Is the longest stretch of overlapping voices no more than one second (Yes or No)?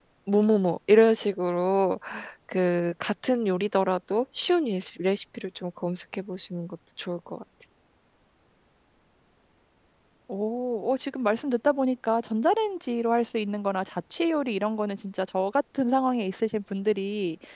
Yes